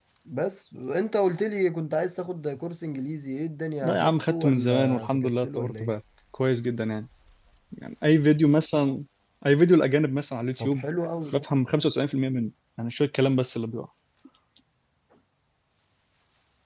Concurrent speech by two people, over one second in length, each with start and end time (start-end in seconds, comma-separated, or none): 3.8-6.0